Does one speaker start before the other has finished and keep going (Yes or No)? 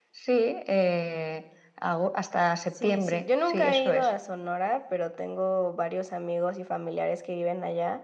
Yes